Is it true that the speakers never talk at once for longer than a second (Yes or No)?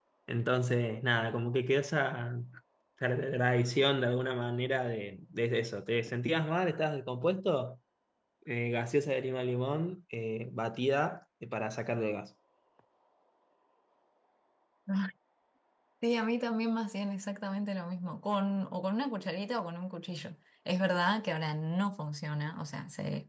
Yes